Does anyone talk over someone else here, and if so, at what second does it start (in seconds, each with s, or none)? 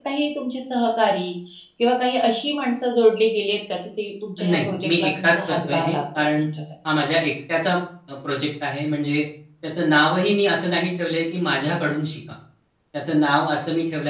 4.4 s